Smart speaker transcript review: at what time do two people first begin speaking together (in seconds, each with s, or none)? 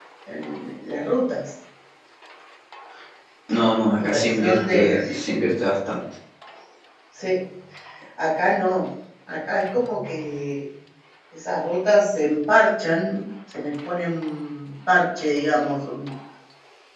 4.0 s